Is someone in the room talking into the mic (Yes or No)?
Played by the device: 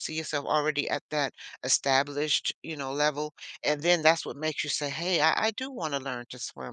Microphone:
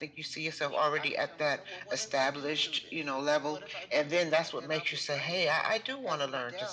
Yes